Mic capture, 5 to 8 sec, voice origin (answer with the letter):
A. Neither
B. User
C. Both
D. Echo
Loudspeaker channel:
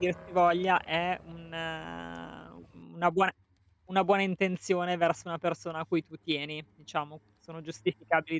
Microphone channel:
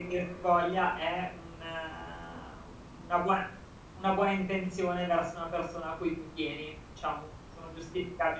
D